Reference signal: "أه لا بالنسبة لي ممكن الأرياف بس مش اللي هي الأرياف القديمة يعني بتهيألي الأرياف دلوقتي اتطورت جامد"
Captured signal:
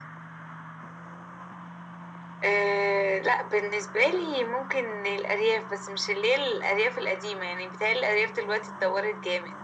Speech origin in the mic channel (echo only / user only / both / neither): echo only